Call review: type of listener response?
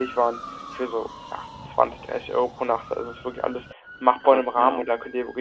listening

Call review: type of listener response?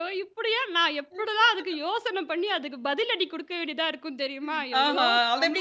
taking over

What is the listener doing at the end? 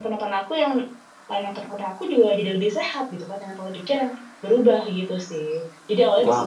taking over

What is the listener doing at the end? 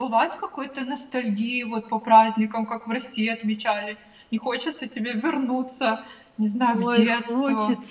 taking over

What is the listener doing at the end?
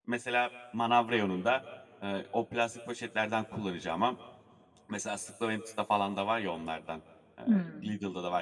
listening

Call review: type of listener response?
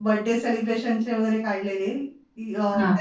listening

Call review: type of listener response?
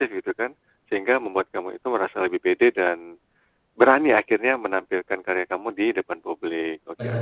taking over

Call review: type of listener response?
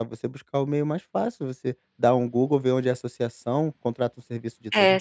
taking over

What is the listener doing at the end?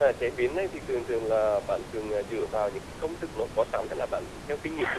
taking over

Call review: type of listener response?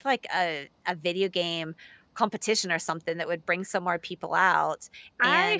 taking over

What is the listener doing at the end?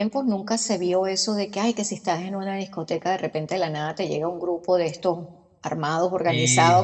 listening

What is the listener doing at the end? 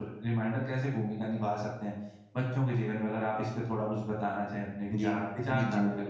taking over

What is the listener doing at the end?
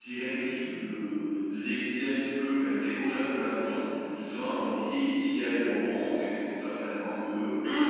taking over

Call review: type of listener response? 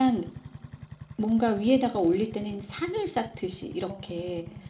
listening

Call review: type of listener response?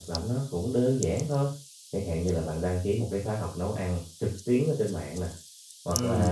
listening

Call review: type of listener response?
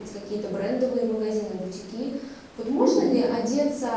listening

